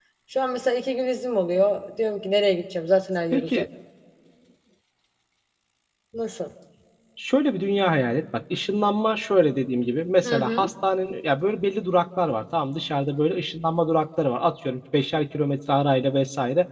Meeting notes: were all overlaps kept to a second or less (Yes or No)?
Yes